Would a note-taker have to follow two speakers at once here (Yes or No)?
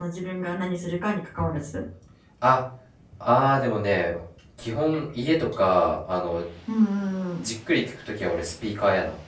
No